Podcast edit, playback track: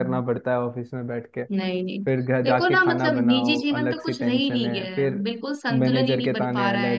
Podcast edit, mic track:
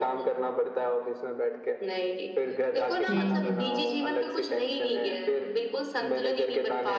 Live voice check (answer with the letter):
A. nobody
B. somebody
B